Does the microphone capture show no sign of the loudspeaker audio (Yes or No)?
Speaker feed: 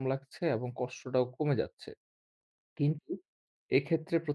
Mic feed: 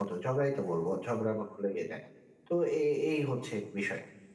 Yes